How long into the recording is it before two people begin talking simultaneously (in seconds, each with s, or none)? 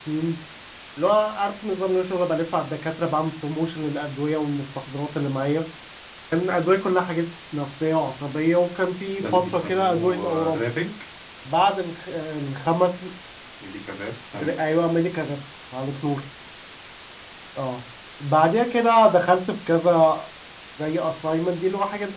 9.2 s